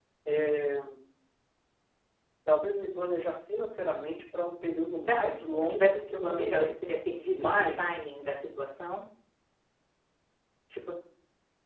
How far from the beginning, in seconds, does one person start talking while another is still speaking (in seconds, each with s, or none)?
5.0 s